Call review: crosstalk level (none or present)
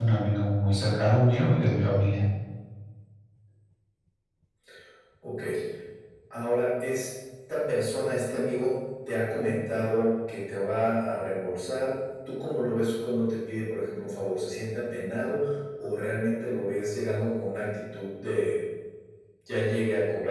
none